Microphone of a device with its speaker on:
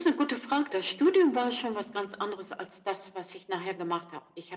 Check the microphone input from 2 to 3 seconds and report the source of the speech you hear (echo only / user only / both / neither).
echo only